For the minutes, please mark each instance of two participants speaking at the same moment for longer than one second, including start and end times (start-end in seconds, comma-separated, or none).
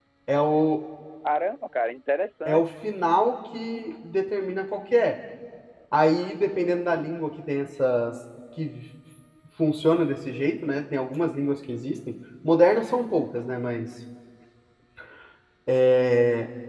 none